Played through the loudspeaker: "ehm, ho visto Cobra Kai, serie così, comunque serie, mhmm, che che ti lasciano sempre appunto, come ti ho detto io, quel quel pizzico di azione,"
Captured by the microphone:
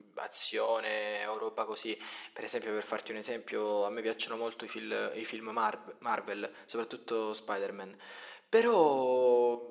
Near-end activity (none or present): present